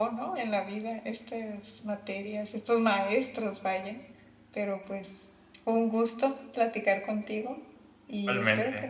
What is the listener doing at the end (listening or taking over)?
listening